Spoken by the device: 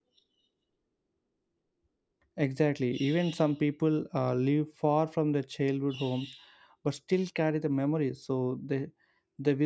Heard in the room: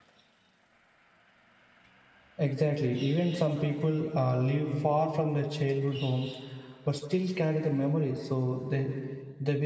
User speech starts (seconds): none

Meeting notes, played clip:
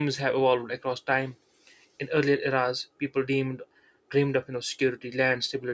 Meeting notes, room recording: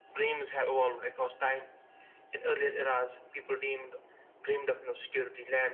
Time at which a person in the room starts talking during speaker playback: none

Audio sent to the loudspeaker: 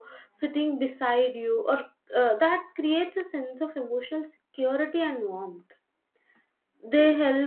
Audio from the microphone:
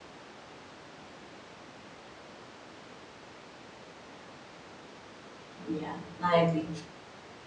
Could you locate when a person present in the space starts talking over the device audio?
6 s

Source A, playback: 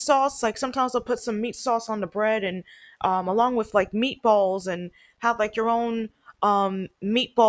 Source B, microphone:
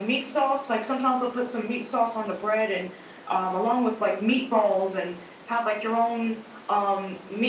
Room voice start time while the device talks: none

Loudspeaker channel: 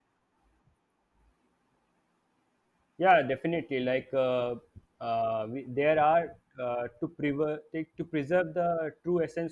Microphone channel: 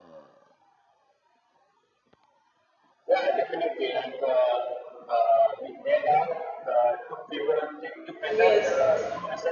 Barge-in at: 8 s

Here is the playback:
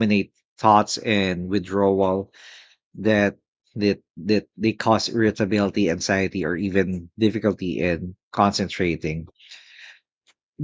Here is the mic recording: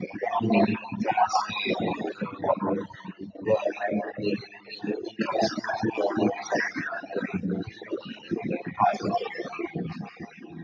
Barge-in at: none

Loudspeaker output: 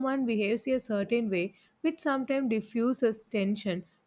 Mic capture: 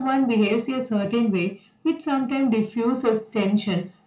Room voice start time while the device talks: none

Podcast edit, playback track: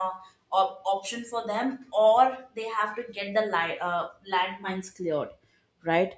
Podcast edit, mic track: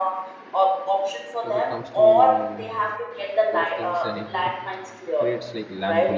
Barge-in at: 1 s

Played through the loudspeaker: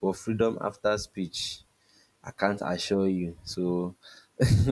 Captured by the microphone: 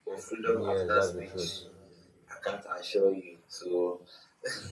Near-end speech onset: 0 s

